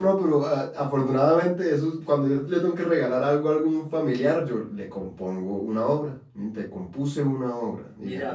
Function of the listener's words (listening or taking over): taking over